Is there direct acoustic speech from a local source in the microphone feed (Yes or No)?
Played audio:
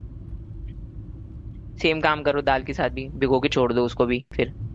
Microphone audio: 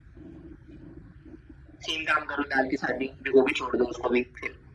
No